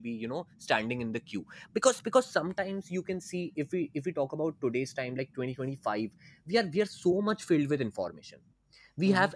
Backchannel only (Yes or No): Yes